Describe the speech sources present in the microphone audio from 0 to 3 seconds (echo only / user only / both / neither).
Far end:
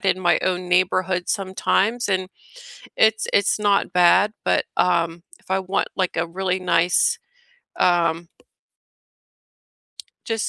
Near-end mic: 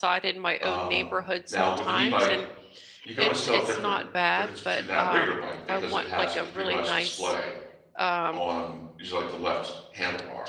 both